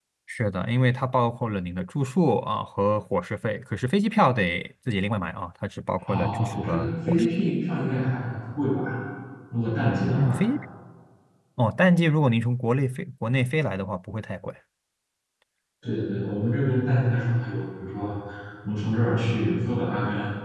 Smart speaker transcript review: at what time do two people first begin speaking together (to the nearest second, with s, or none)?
6 s